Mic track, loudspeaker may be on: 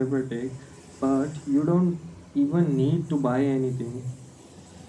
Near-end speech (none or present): none